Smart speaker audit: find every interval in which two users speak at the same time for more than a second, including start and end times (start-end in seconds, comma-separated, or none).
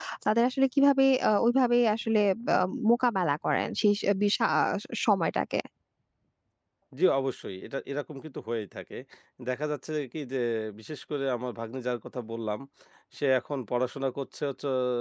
none